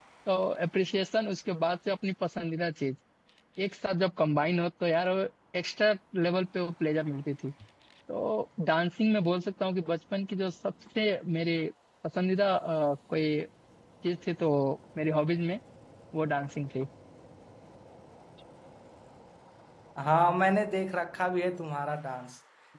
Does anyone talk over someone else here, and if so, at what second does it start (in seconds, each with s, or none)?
none